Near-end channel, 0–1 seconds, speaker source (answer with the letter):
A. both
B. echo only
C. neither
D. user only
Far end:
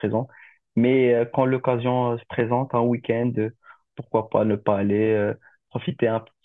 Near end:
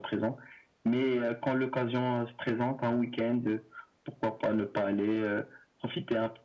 B